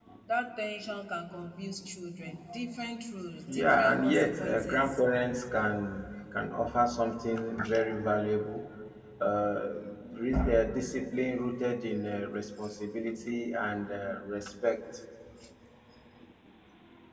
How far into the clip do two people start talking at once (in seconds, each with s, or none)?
3.5 s